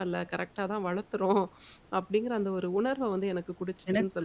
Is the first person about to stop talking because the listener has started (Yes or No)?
Yes